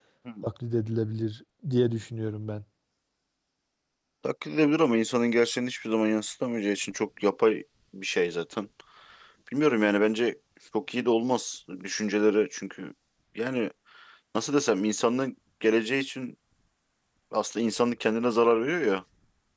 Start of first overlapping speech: none

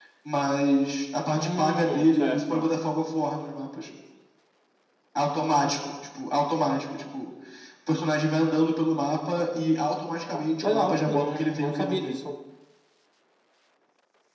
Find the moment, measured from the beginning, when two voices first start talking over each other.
1.4 s

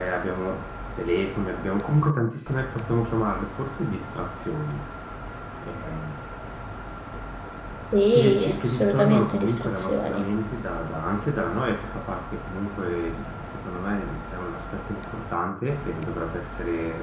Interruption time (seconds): 8.1 s

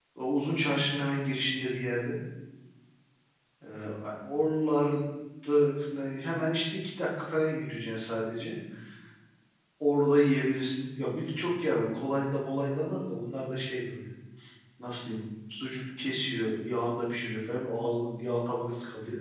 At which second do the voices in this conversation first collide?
none

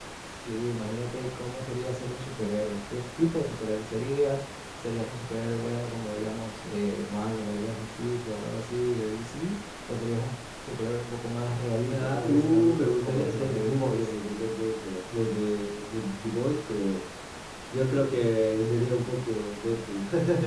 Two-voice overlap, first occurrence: 11.9 s

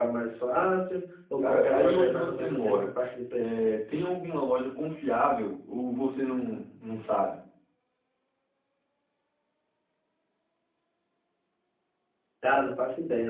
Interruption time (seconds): 1.4 s

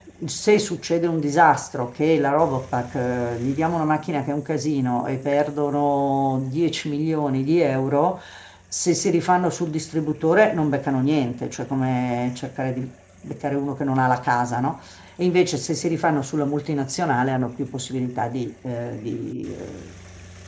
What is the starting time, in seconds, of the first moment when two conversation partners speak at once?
none

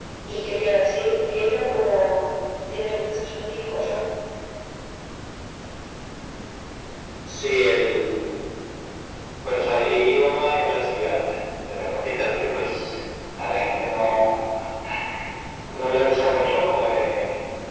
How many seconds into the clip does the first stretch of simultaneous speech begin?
none

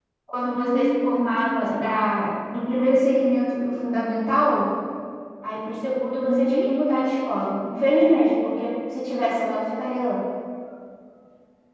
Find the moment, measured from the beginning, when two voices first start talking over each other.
0.5 s

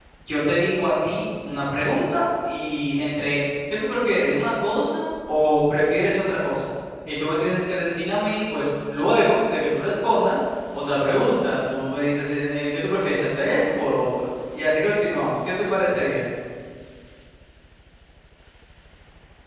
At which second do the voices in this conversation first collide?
none

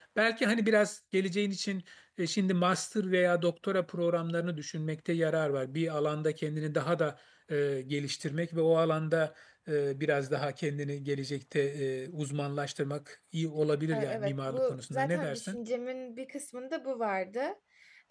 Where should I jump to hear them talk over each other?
13.9 s

